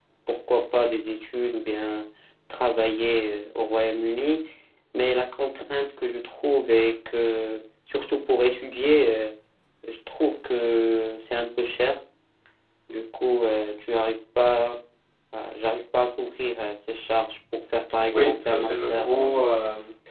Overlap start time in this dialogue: 18.1 s

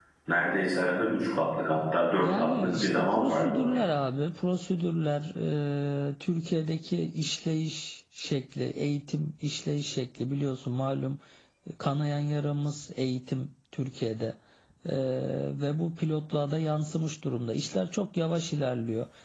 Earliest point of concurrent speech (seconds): 2.2 s

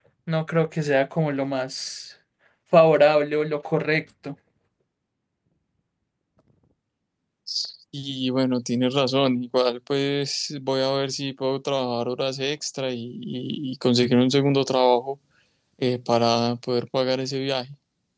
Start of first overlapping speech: none

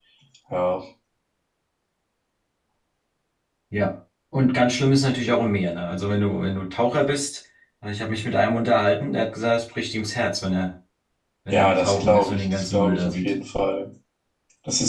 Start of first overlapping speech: 11.5 s

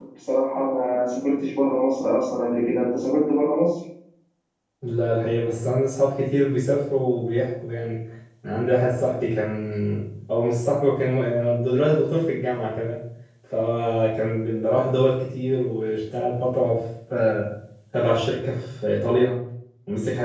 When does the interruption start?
none

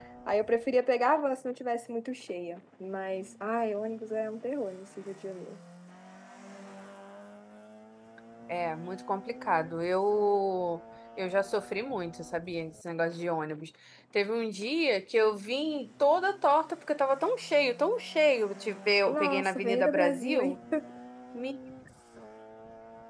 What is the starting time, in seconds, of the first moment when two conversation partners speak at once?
19.1 s

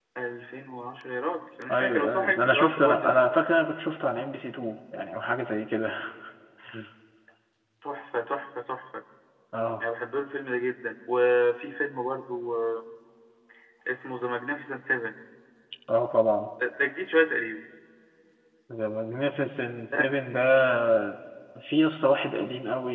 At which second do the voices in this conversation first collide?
1.7 s

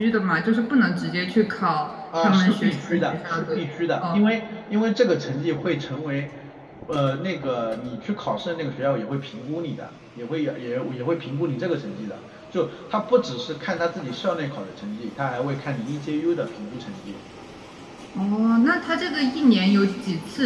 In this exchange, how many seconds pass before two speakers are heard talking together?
2.1 s

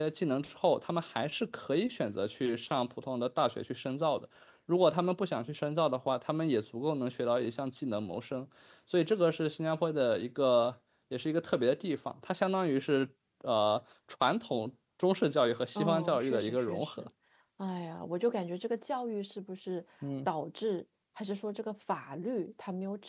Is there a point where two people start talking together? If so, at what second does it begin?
15.8 s

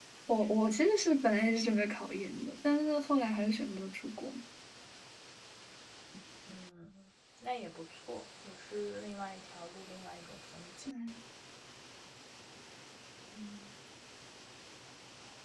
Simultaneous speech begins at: none

